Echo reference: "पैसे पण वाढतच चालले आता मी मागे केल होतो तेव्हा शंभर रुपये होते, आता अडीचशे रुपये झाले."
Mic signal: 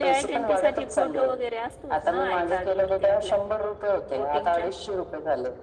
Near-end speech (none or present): present